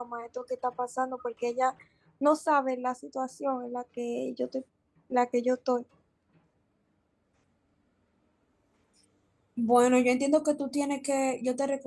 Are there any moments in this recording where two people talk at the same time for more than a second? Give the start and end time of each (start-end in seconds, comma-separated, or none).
none